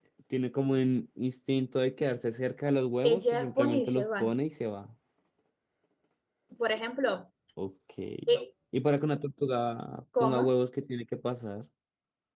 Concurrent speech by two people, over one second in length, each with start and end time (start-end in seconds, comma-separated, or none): 3.0-4.3